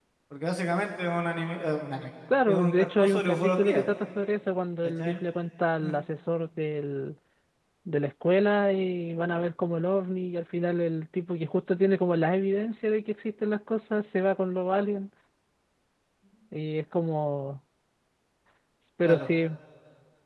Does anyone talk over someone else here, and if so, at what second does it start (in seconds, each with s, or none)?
2.5 s